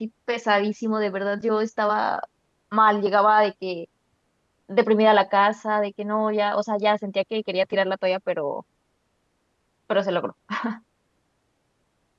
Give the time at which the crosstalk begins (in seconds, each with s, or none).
none